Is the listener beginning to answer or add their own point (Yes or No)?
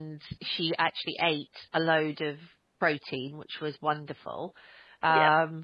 No